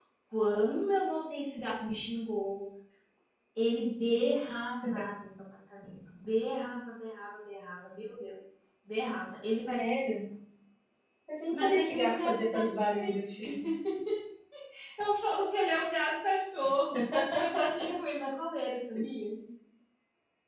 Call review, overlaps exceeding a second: present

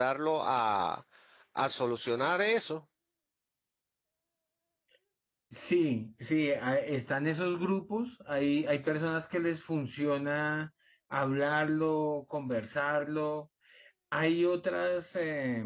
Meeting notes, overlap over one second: none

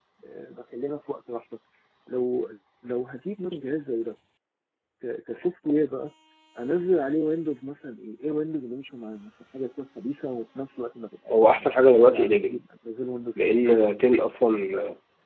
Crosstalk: present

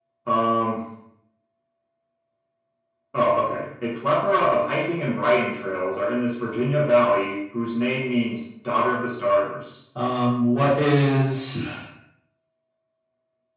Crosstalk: none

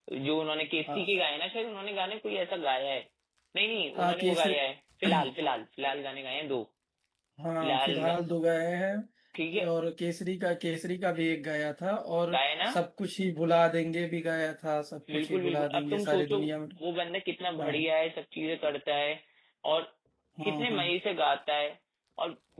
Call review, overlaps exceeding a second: present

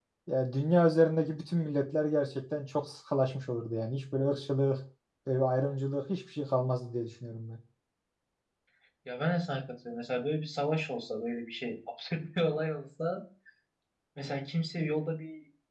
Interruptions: none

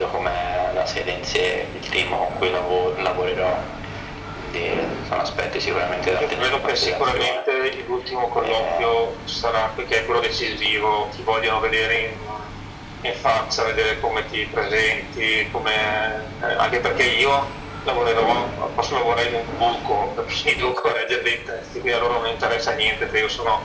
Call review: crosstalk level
present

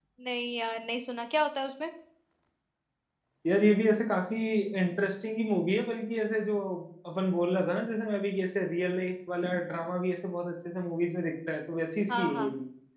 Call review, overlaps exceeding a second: none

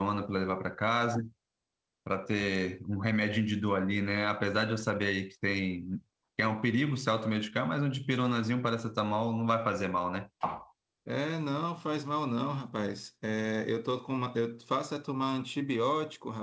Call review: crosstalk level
none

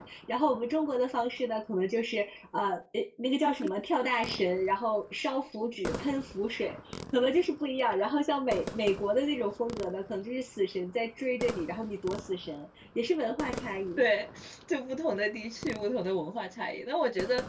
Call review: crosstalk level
none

